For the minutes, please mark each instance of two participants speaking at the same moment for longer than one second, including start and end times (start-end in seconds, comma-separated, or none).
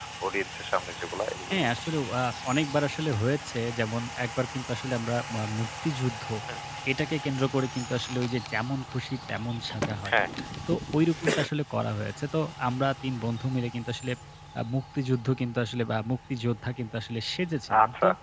none